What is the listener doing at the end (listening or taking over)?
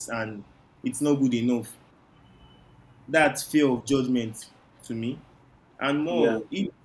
listening